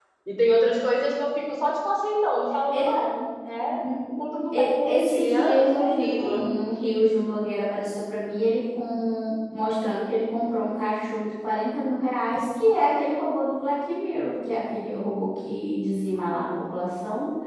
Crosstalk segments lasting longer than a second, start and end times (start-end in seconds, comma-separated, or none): 4.5-6.4